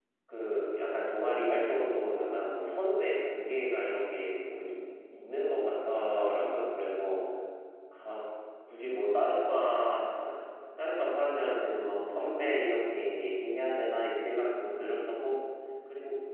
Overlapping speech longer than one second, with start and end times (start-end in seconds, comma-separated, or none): none